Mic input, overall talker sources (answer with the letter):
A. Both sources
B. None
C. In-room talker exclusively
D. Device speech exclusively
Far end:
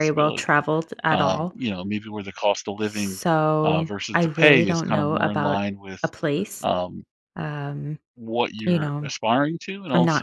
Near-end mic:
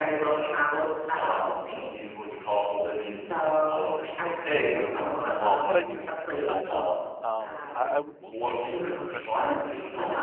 A